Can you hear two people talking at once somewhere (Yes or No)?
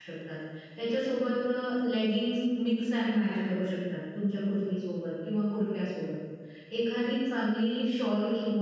No